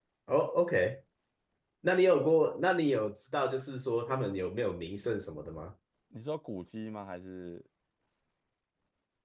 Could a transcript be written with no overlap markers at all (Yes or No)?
Yes